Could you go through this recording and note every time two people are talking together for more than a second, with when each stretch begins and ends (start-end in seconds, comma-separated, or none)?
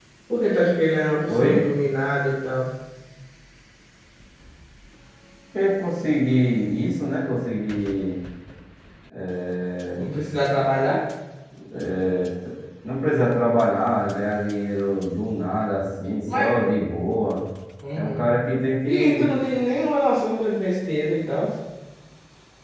none